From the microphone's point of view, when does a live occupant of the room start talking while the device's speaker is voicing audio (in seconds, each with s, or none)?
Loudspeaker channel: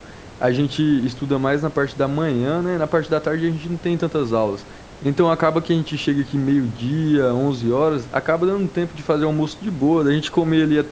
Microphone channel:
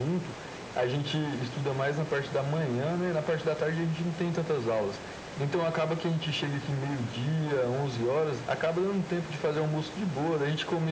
none